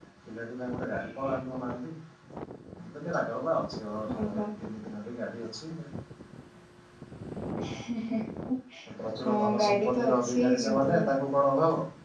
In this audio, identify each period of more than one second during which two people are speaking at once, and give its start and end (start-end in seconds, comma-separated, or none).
9.3-10.9